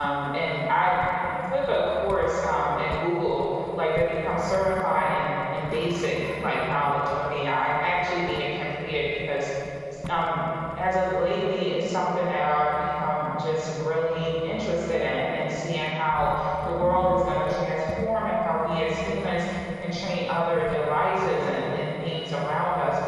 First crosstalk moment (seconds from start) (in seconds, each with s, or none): none